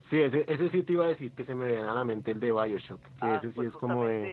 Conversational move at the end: taking over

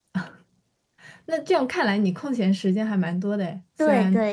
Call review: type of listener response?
taking over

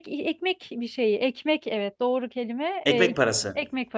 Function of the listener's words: listening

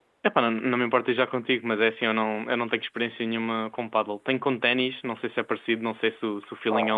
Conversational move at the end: taking over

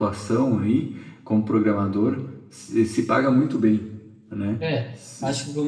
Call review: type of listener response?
taking over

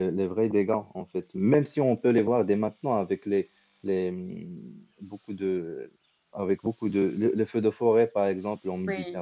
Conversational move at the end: listening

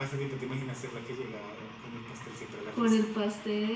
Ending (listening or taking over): taking over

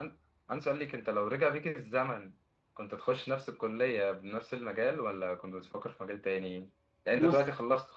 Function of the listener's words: listening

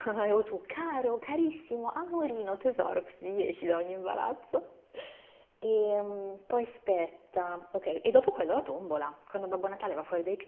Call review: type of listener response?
listening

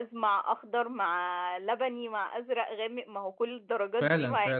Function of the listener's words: taking over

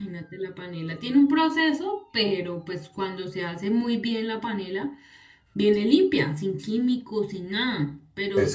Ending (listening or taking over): listening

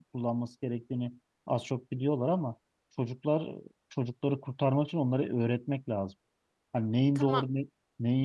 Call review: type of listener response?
listening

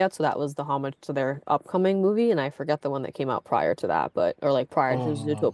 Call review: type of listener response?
listening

